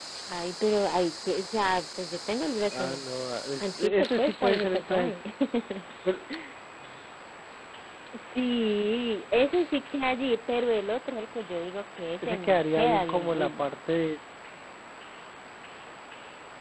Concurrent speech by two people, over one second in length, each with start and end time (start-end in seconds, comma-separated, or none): 3.6-5.1, 12.2-13.6